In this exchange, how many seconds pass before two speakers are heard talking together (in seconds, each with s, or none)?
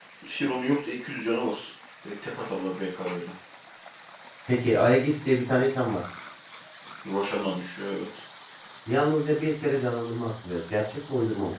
none